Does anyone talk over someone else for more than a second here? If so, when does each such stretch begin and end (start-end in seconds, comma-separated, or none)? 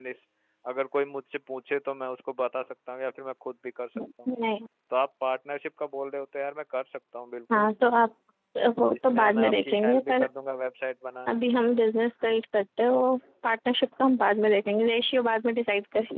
8.9-10.3